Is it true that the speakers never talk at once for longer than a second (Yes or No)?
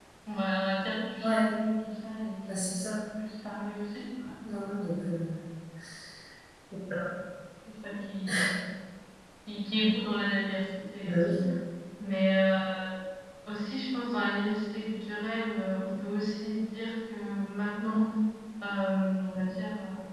Yes